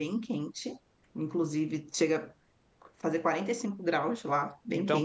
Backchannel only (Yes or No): No